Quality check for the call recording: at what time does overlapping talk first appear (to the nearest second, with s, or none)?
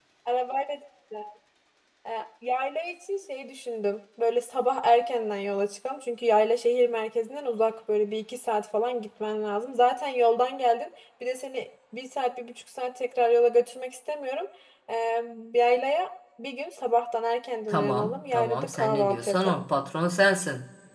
18 s